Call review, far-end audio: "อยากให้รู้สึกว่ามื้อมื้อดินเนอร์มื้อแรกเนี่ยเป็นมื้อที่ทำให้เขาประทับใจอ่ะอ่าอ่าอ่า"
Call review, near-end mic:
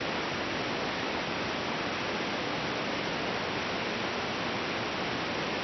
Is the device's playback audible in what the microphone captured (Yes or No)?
No